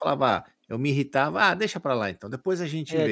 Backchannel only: No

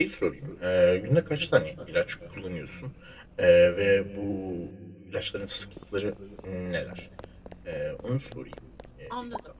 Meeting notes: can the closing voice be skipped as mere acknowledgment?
No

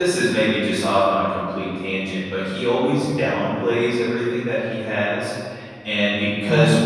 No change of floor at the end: Yes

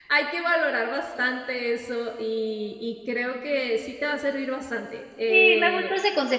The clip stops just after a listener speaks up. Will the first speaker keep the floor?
No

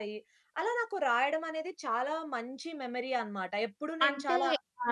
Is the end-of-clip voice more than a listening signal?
Yes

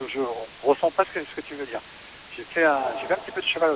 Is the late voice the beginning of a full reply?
No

